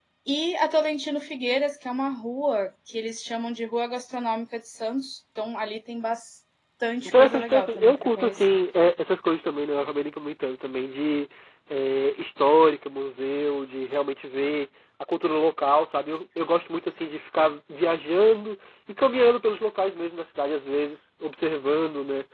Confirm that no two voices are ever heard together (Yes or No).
No